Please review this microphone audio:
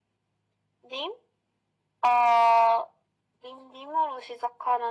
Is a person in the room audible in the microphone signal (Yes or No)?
No